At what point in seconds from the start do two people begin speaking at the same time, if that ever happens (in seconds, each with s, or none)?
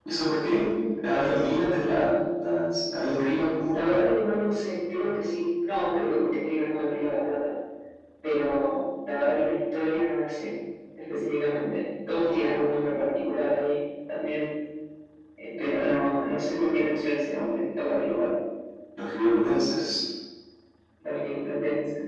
none